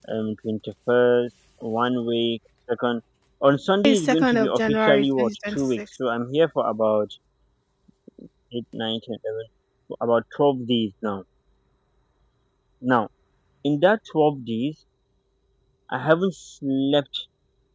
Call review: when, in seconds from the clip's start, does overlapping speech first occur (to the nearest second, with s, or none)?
4 s